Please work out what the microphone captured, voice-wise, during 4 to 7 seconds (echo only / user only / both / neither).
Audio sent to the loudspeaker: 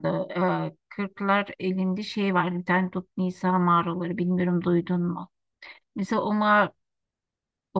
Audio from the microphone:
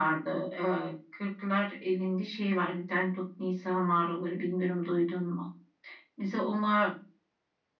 echo only